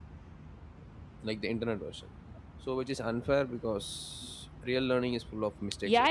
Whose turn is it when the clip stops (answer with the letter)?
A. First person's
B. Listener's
B